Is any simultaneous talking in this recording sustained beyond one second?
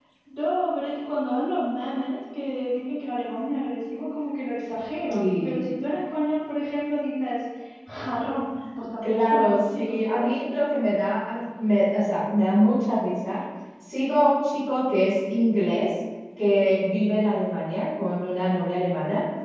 Yes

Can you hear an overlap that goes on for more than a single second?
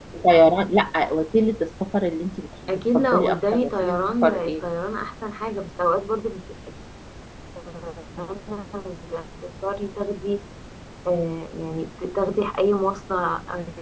Yes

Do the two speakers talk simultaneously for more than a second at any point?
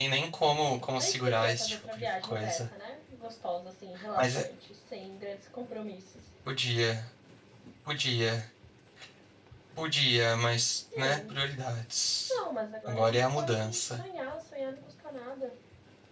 Yes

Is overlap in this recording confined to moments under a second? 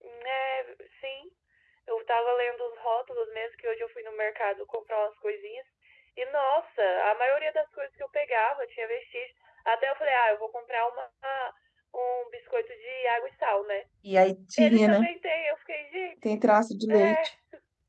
Yes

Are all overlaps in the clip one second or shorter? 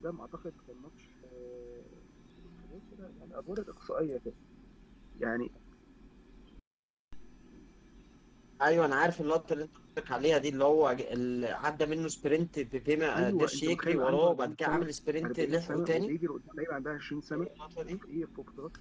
No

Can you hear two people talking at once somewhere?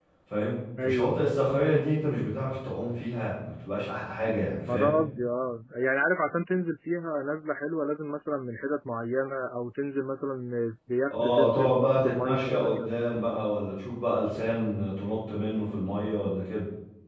Yes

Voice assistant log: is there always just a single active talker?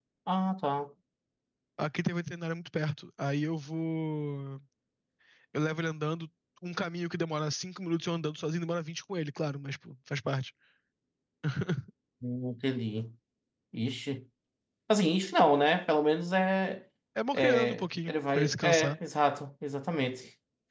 No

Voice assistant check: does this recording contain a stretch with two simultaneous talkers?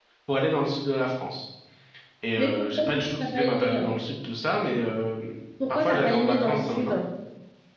Yes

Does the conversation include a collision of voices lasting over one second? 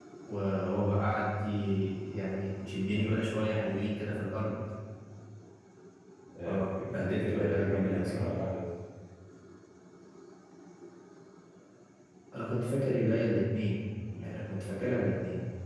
Yes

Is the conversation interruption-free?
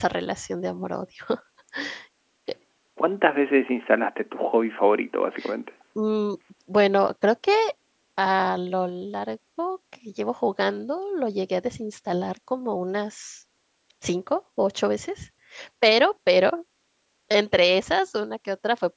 Yes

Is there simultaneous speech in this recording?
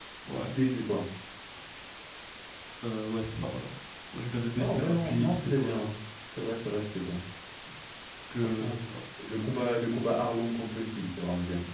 Yes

